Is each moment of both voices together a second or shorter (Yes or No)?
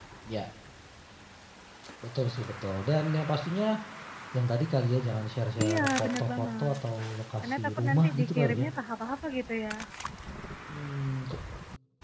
No